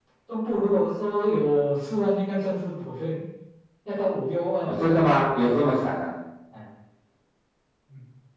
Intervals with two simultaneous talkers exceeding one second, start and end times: 4.6-5.9

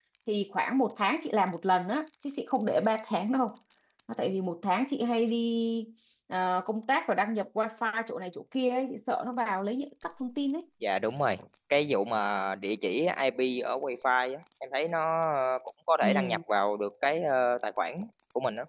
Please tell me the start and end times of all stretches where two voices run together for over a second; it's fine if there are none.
none

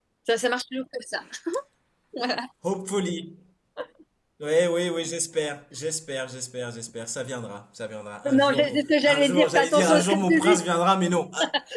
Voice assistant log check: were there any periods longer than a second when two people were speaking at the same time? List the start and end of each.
8.3-10.6

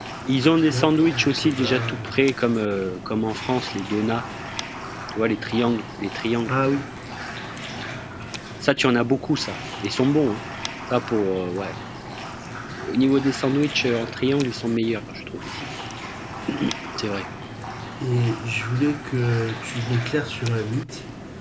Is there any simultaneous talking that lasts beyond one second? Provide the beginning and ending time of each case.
0.6-2.1

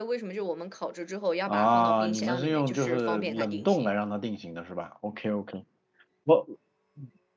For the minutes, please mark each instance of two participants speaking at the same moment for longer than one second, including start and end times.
1.5-4.0

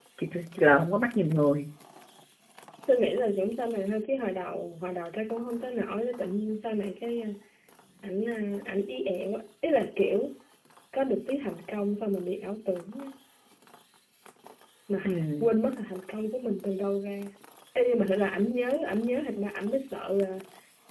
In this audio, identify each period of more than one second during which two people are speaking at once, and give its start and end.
none

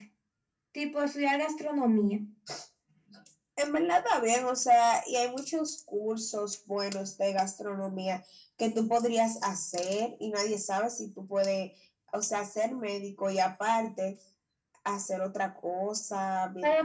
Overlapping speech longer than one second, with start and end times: none

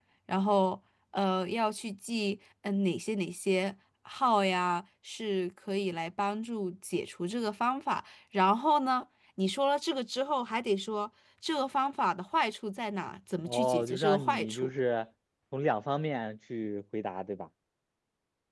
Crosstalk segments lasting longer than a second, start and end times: 13.4-14.7

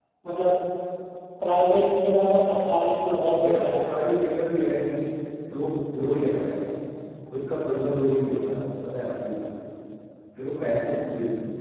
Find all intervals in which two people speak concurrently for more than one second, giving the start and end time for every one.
none

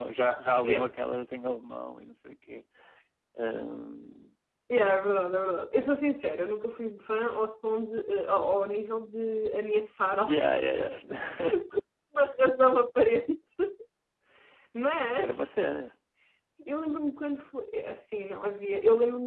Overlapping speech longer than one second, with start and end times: none

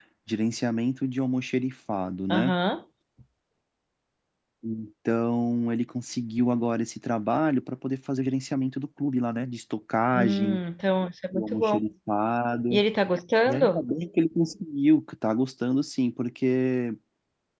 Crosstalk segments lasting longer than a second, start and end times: none

